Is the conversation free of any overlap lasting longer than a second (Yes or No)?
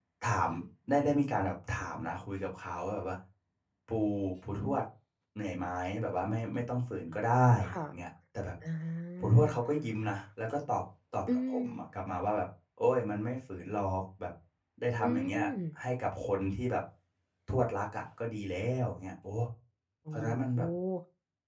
Yes